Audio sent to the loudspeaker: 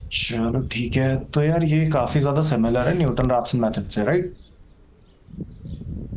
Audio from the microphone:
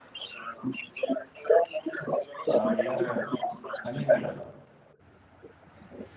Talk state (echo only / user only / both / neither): both